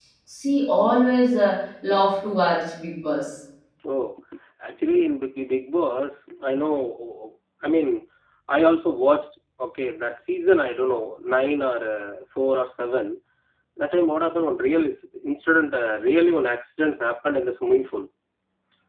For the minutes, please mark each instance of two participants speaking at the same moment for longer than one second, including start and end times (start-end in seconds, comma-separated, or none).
none